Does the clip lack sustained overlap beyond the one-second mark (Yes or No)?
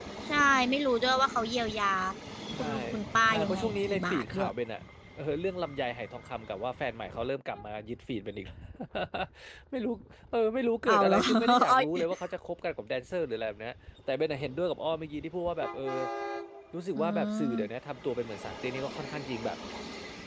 No